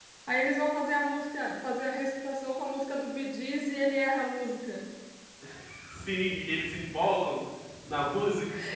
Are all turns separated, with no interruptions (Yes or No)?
Yes